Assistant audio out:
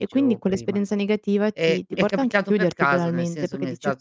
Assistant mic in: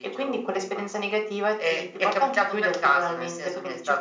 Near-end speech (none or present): none